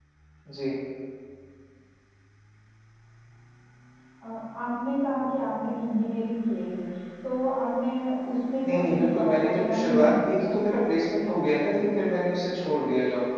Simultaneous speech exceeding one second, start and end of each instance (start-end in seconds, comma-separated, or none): 8.7-10.6